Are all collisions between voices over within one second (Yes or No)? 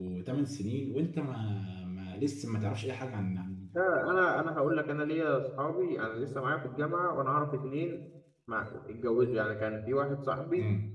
Yes